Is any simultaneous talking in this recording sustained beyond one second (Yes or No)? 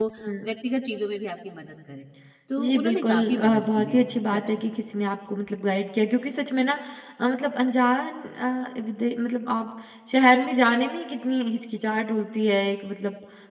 Yes